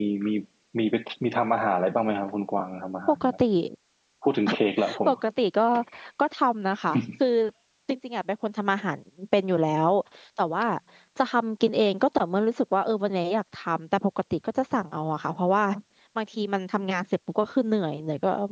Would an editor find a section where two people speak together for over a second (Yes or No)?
No